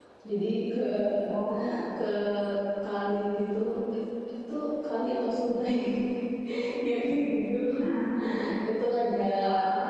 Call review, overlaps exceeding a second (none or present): none